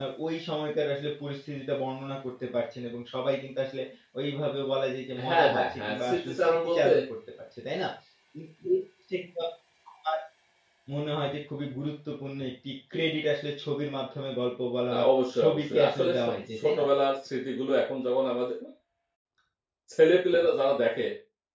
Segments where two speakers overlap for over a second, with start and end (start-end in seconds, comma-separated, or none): 5.2-6.9, 15.4-16.8